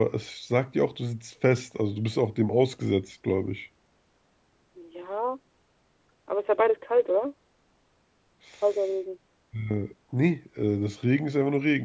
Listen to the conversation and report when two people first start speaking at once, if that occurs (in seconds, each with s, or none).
none